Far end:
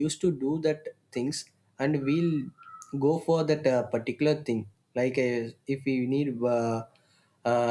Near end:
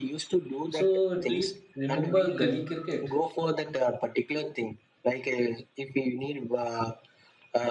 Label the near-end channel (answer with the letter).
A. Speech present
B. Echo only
A